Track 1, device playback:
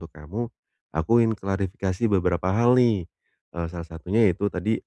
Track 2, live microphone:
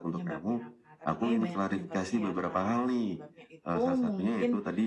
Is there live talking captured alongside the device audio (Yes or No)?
Yes